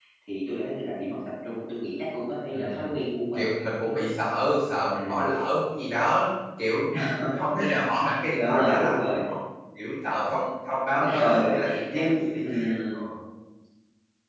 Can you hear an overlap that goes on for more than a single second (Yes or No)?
Yes